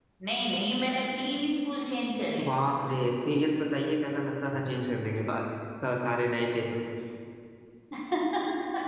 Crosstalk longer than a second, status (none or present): none